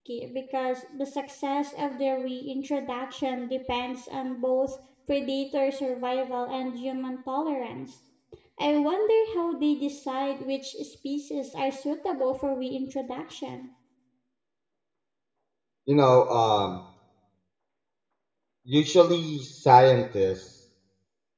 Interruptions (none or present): none